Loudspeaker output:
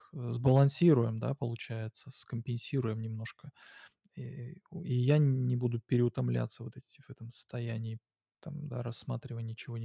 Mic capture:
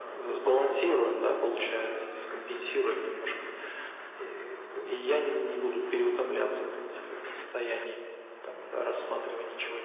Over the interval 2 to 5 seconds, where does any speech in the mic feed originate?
echo only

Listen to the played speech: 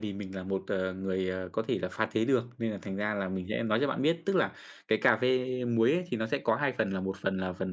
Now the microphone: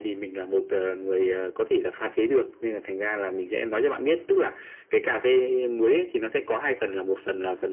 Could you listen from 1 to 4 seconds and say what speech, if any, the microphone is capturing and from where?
echo only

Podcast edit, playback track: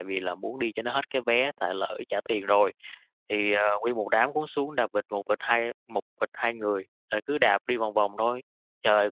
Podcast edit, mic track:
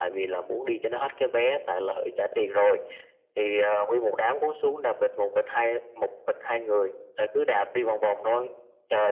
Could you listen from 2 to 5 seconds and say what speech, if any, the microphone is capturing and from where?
echo only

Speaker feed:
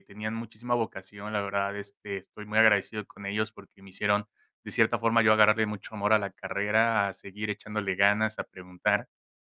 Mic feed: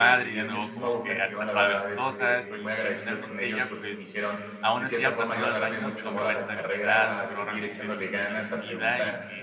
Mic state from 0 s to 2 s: both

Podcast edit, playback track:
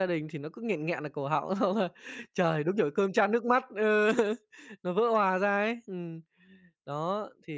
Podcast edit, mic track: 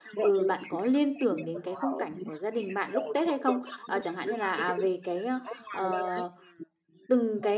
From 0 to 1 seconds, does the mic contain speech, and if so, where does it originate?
both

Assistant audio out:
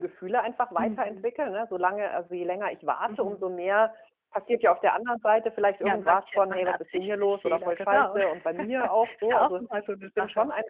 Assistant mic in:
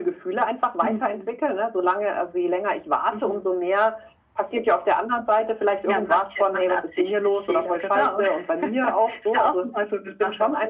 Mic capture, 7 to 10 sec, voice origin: echo only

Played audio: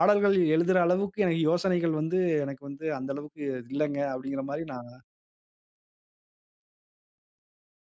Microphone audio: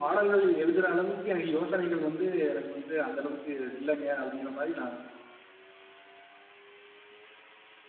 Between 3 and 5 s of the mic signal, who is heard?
echo only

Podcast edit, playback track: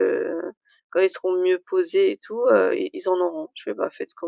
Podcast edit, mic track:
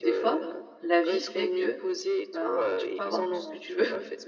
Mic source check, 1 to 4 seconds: both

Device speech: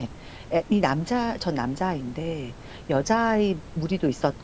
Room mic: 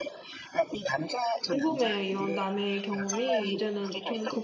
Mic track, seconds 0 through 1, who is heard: echo only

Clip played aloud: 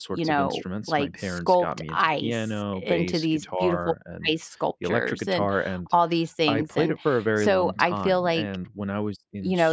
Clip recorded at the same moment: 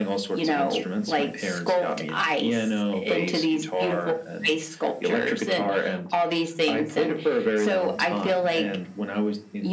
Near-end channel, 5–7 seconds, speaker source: echo only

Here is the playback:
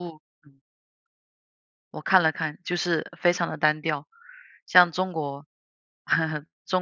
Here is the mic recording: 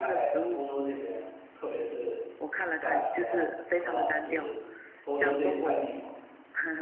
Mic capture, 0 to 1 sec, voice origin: both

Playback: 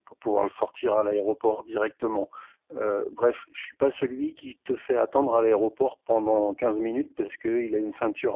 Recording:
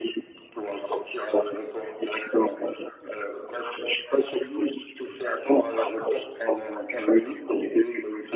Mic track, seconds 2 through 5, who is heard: echo only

